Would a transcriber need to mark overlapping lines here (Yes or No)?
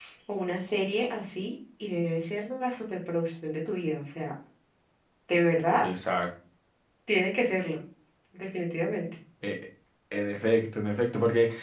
No